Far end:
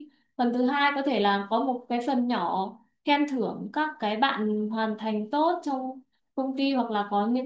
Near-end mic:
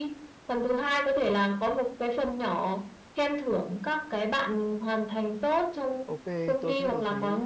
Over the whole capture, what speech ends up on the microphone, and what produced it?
both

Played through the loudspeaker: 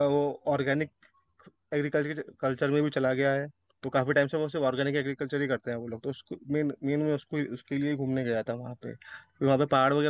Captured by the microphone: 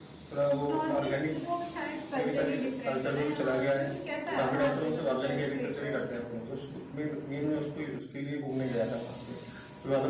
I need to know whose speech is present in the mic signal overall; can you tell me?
both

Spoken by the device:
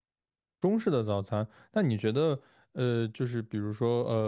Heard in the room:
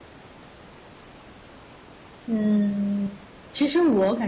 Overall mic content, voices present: user only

